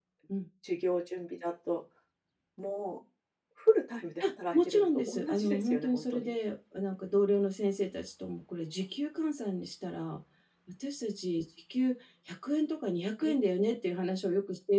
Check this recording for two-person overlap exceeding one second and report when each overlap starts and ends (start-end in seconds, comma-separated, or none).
4.2-6.3